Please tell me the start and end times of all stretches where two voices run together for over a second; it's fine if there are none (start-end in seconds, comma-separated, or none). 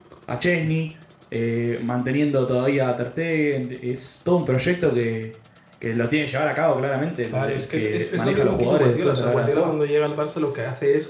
7.2-9.7